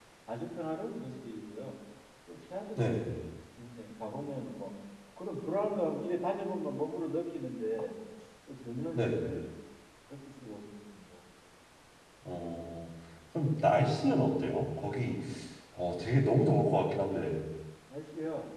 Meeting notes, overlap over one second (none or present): none